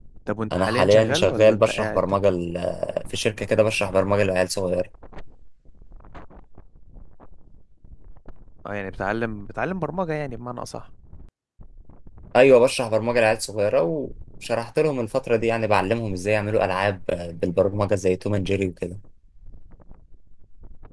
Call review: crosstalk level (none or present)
present